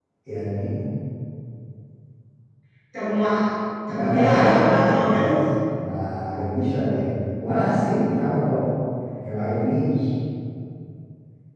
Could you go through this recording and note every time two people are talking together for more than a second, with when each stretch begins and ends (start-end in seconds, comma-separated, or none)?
3.9-5.3